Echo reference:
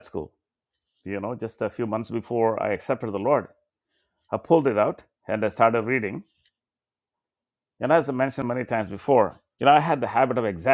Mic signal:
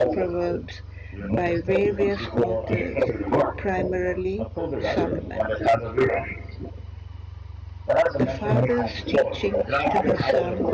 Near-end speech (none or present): present